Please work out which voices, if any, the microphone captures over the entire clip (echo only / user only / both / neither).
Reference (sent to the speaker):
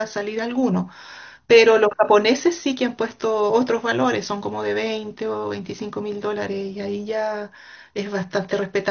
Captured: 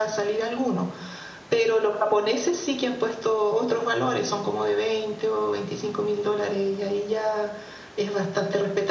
echo only